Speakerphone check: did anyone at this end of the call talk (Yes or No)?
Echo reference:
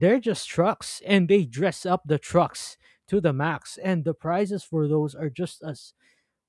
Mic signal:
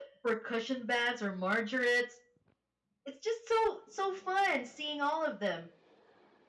Yes